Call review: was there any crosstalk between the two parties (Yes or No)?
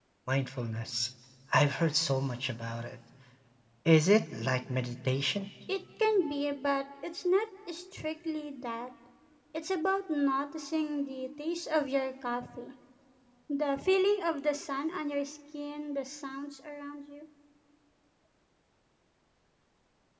No